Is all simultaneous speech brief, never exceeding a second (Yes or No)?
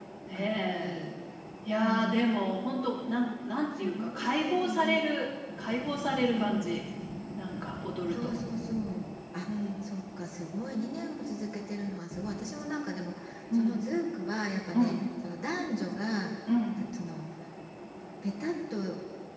No